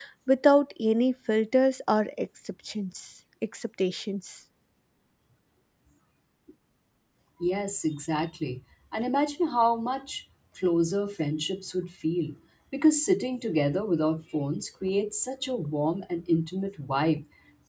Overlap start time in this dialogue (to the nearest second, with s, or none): none